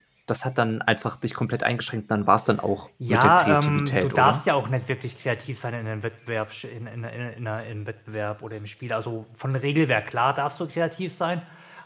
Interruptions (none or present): present